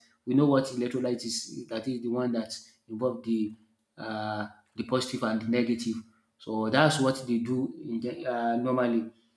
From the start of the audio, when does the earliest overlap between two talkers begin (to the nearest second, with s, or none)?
none